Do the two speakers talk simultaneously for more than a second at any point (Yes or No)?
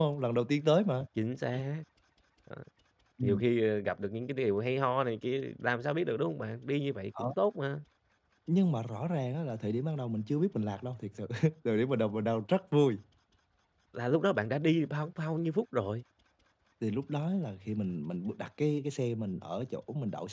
No